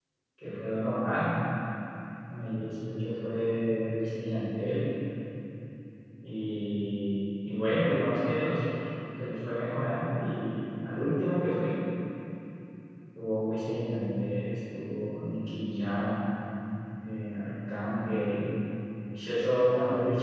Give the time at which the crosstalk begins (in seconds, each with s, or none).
none